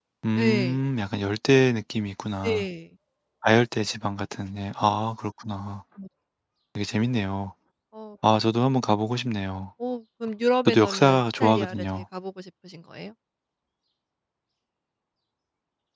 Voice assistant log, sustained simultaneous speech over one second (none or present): present